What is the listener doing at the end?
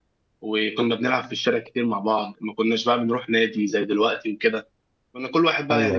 listening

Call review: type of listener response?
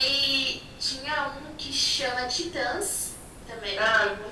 taking over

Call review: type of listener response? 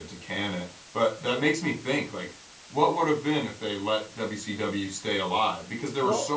listening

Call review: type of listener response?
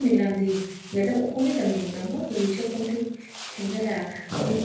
listening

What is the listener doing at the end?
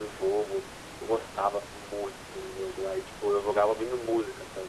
listening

